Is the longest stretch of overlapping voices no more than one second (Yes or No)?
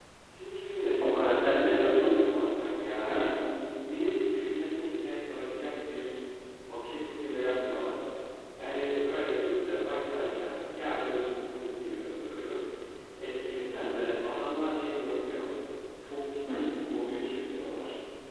No